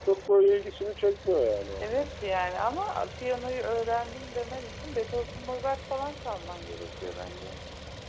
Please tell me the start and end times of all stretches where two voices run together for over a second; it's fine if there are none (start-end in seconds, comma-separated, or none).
none